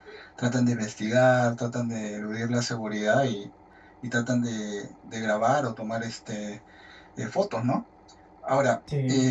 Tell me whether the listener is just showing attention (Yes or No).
Yes